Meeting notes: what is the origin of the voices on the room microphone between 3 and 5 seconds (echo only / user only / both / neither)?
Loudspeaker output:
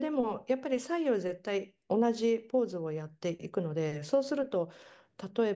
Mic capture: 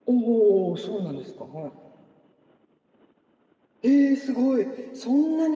user only